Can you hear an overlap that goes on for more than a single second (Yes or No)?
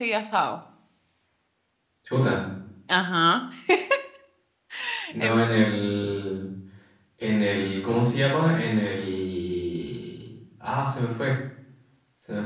No